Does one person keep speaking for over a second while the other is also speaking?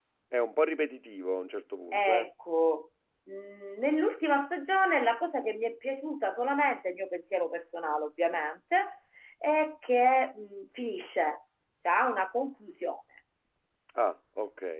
No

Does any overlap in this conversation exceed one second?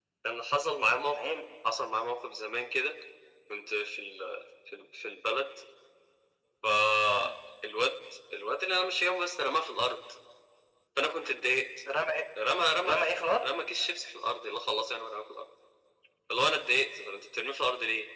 No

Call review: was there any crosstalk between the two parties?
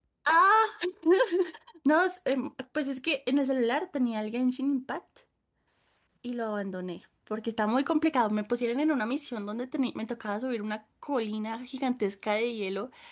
No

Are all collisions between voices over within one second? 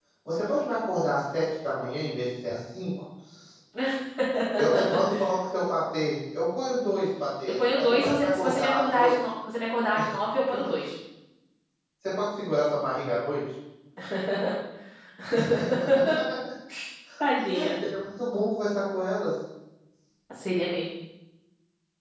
No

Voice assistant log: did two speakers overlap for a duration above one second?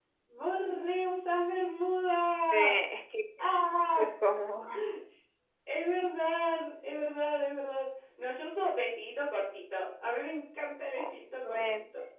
No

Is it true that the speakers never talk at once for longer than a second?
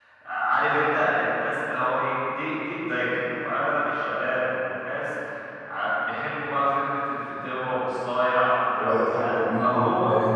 No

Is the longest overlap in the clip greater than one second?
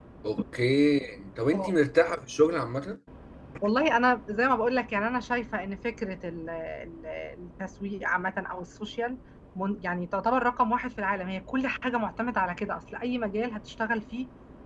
No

